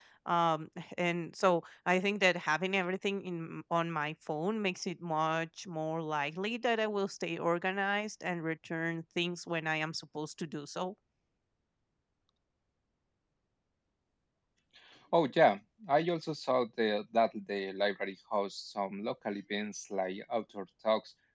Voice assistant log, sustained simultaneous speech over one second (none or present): none